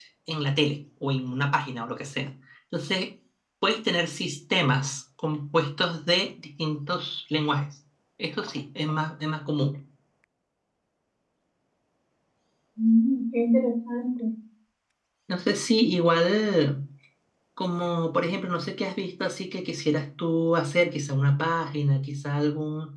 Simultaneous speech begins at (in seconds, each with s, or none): none